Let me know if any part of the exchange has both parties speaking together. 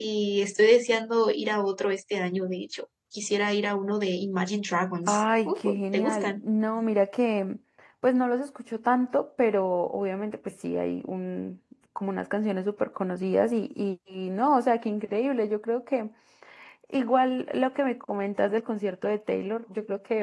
Yes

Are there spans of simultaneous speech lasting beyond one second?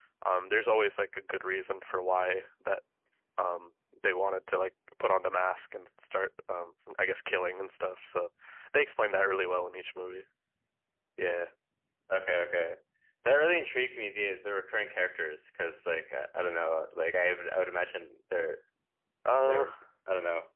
No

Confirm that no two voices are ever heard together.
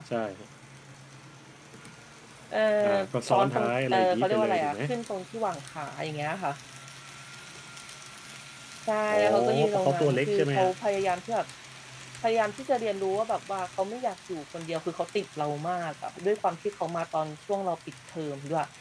No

